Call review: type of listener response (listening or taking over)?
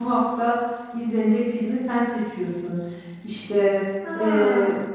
listening